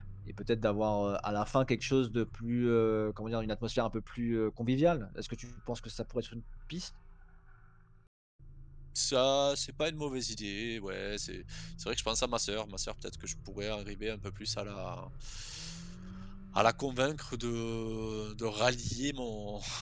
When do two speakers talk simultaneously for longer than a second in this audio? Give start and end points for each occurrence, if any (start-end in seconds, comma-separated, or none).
none